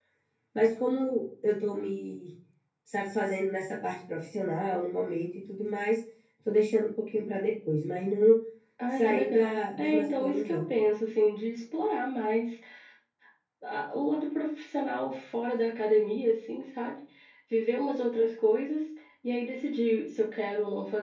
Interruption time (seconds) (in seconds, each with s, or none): 8.9 s